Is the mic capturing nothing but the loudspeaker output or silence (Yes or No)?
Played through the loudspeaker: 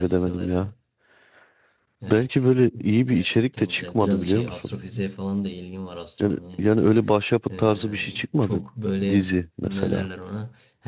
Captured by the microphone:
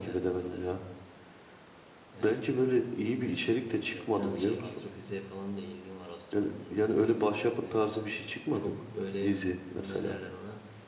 Yes